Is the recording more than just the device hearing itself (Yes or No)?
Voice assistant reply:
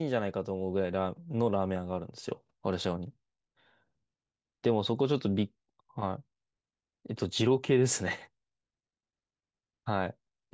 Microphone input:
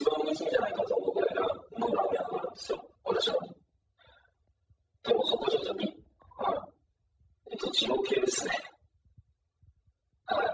No